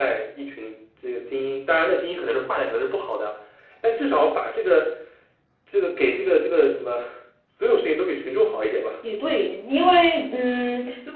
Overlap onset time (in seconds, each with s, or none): none